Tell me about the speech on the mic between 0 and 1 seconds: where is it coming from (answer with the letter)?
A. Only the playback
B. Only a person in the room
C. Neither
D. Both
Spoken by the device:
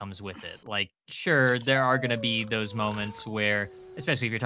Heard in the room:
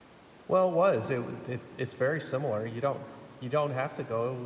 B